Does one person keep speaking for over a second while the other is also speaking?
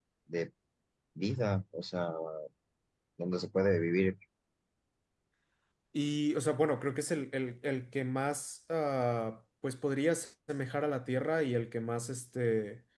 No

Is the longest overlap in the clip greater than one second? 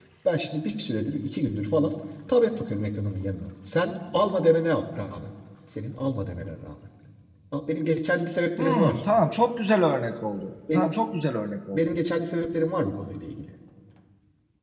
No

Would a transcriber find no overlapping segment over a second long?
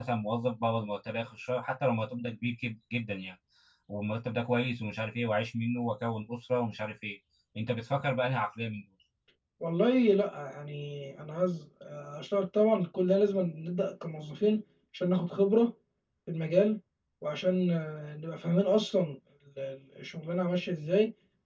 Yes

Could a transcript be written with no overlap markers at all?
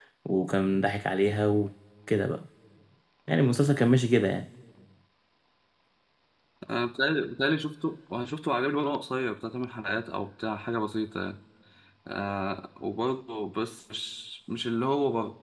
Yes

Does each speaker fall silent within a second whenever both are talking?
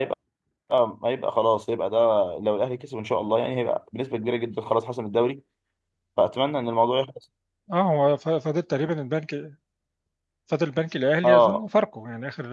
Yes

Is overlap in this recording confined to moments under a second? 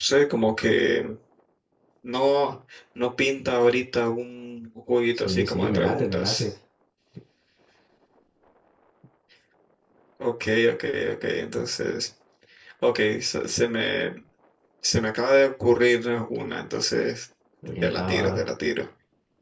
No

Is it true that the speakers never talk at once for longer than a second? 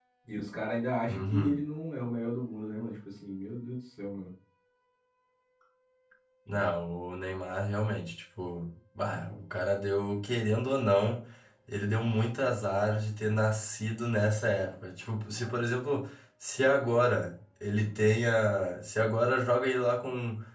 Yes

